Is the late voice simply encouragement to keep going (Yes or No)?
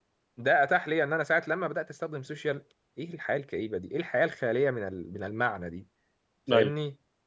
Yes